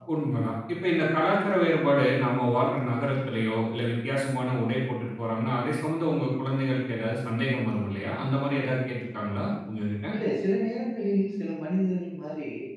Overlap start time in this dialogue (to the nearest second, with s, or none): none